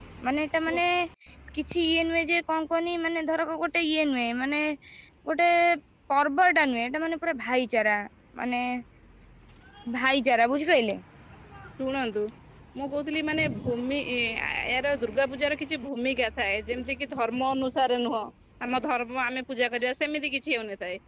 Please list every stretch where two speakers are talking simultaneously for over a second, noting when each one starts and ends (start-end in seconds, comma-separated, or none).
none